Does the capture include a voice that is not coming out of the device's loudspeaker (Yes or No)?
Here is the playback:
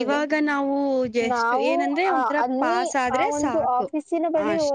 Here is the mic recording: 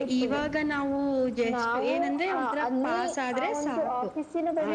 No